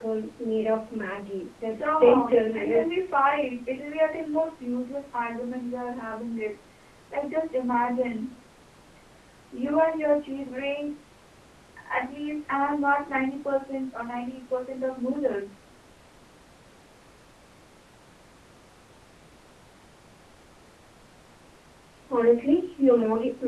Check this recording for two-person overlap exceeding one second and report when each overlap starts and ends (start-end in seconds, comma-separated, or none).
1.6-2.8